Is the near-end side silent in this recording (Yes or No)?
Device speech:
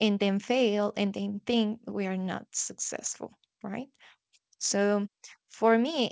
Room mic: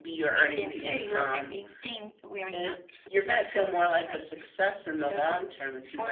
No